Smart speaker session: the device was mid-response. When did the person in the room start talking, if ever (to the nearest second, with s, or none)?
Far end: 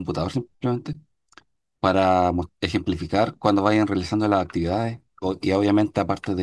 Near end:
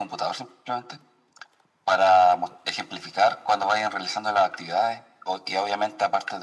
none